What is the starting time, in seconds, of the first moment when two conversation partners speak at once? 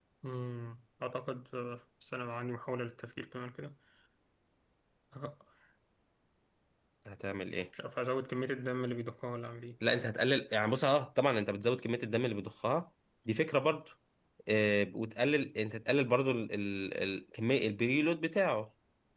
none

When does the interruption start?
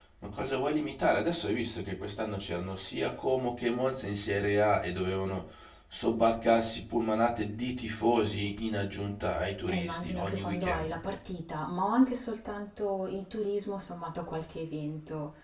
9.7 s

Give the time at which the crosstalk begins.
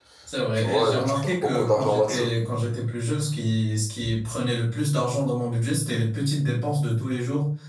0.6 s

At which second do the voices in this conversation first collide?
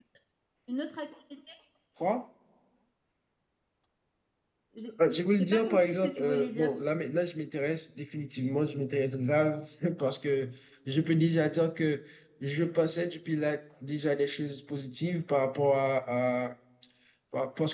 5.4 s

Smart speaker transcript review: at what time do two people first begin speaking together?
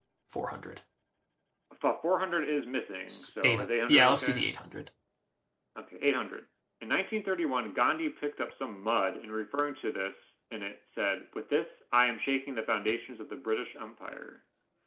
3.1 s

